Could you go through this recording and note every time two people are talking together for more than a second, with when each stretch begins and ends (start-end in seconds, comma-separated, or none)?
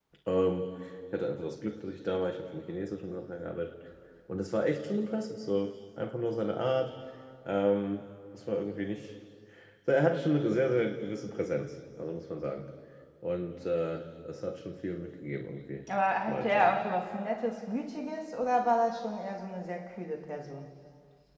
none